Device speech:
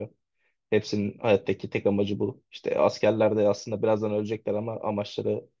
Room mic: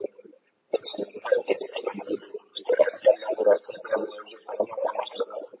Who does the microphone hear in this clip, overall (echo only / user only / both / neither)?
echo only